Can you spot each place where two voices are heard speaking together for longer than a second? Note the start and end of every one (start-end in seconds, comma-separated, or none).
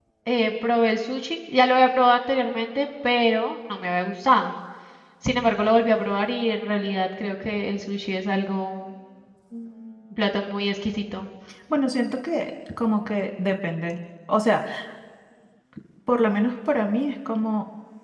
none